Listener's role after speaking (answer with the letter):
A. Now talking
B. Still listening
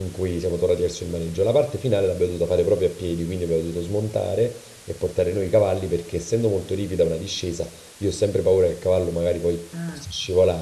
B